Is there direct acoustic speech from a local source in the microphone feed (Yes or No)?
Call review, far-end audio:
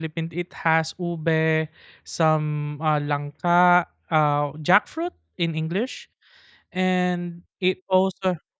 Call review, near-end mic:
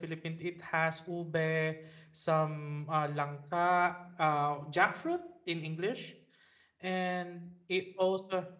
No